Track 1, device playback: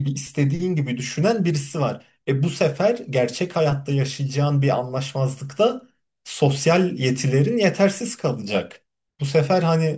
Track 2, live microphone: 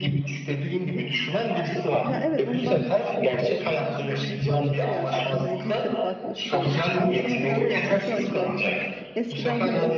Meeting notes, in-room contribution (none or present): present